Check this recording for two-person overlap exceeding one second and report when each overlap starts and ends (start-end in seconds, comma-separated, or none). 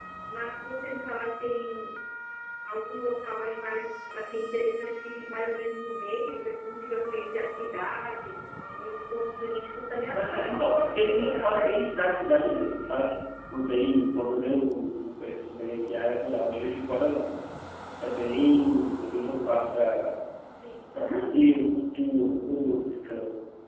10.1-11.7